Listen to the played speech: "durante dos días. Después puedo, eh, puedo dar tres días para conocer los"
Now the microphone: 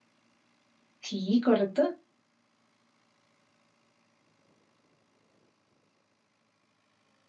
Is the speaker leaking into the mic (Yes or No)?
No